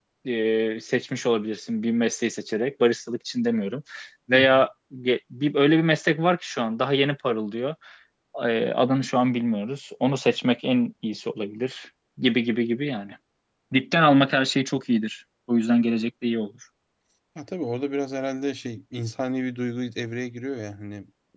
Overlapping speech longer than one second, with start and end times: none

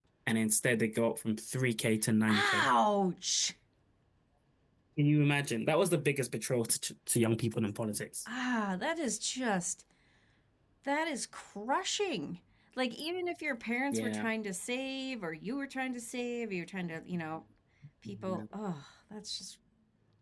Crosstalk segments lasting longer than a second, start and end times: none

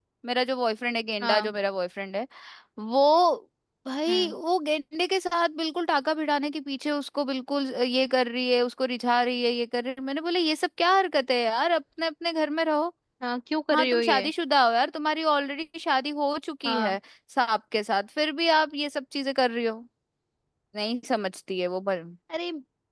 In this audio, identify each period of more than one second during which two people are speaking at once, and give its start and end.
none

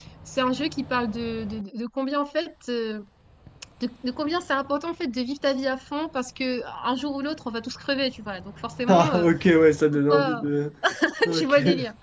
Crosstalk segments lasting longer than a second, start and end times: none

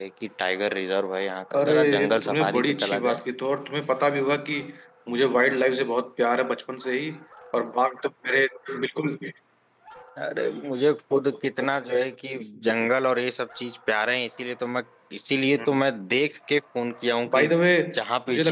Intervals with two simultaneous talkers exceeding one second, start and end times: 1.5-3.2

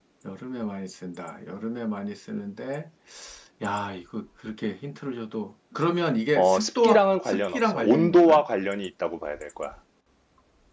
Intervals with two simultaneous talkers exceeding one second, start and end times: 6.4-8.4

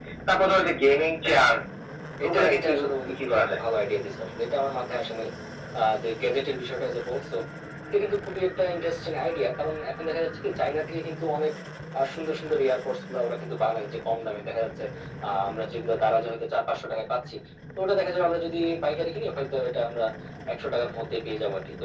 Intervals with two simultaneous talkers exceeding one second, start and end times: 2.3-3.6

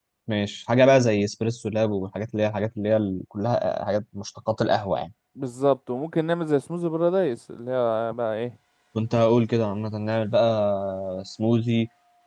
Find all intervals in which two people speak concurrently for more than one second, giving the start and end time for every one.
none

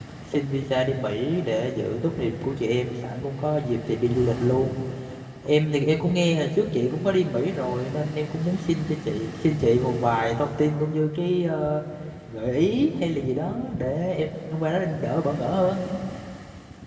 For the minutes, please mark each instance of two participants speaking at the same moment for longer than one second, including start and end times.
none

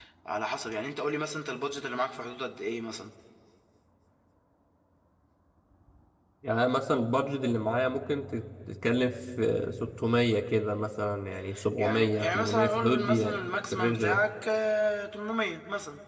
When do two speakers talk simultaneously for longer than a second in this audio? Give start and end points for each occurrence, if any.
11.8-14.2

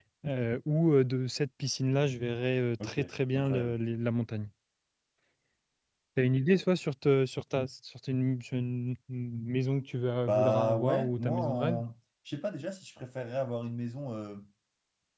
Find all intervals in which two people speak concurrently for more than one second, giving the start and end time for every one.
10.2-11.8

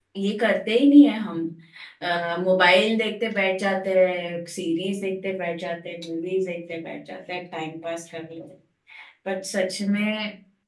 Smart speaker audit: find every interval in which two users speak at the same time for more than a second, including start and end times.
none

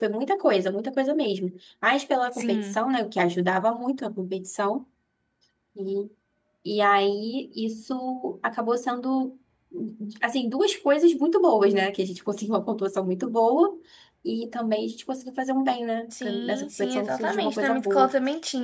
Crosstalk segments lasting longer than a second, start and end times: 16.2-18.1

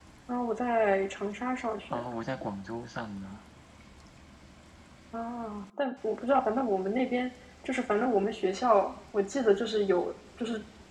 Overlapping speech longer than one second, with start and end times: none

